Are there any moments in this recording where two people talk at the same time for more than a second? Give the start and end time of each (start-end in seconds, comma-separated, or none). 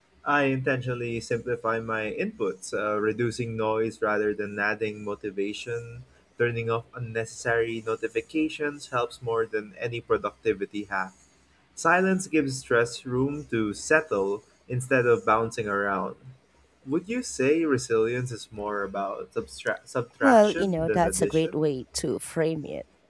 20.2-21.6